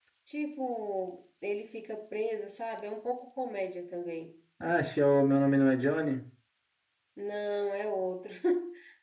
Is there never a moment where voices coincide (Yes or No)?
Yes